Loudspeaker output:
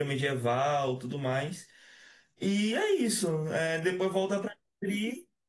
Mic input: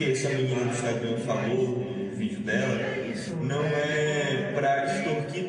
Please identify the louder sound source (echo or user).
user